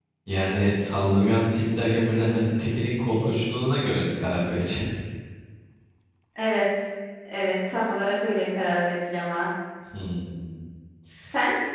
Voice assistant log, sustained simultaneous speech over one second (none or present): none